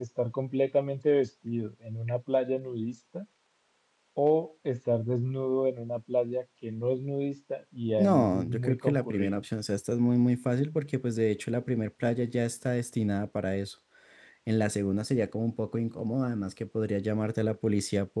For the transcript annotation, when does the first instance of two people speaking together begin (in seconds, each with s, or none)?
8.0 s